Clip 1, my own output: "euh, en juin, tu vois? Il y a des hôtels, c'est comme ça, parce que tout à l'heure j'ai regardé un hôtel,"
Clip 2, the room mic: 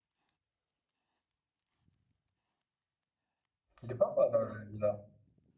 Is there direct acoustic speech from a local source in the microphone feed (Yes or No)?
Yes